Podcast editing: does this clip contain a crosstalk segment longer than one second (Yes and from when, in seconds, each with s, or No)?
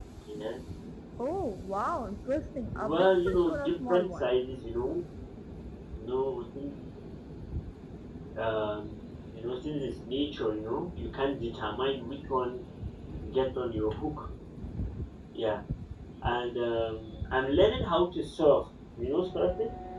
Yes, from 2.7 s